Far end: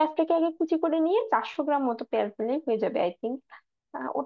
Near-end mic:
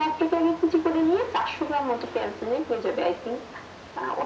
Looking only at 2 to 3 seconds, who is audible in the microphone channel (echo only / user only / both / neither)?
echo only